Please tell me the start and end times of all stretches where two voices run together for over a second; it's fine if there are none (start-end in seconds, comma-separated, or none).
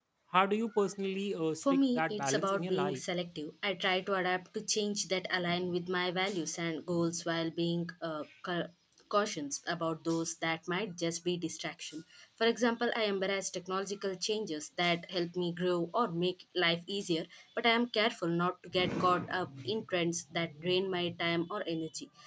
1.6-3.0